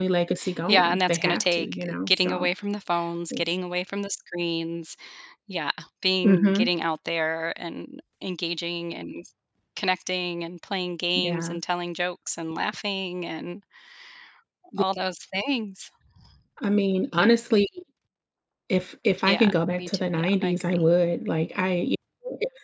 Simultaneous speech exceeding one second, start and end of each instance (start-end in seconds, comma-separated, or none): 0.7-2.5, 19.2-20.8